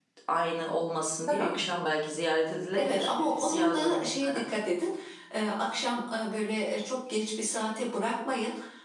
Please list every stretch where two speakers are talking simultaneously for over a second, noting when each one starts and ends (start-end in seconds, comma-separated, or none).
2.7-4.5